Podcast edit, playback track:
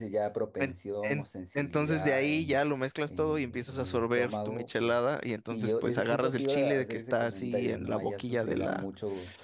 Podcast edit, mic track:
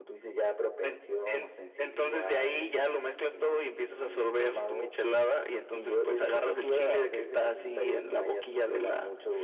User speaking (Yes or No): No